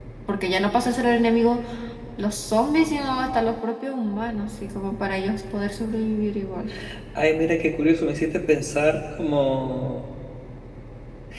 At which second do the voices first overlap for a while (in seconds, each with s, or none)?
none